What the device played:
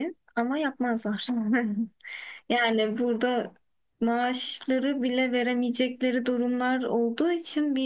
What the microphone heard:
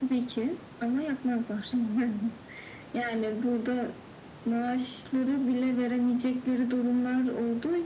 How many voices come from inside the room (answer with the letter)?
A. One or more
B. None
B